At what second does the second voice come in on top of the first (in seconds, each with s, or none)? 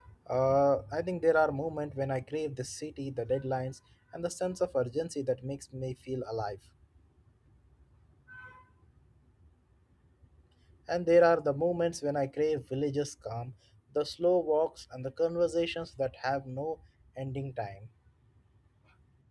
none